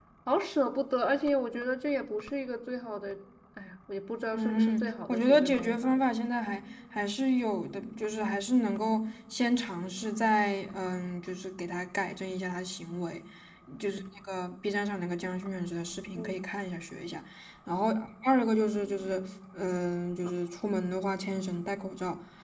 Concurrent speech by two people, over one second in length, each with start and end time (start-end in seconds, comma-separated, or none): 4.3-6.0